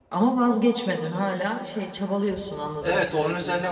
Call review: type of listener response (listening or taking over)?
taking over